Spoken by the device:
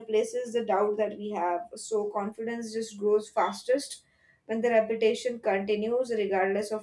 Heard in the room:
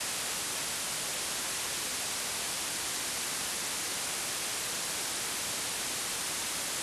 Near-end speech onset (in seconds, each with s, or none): none